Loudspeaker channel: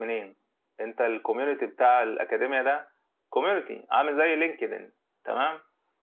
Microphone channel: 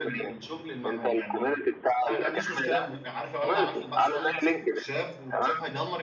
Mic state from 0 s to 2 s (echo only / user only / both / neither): both